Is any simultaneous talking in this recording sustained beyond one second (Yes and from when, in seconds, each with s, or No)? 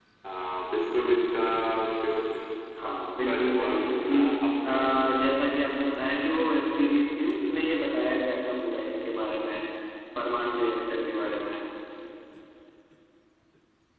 Yes, from 2.8 s